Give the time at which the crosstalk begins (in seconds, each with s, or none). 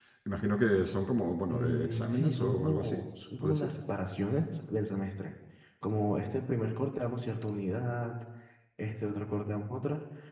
1.5 s